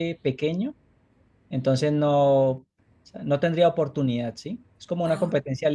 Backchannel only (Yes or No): Yes